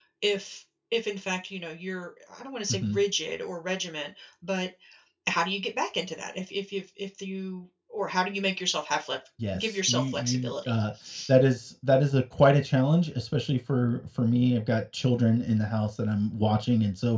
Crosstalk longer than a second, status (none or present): present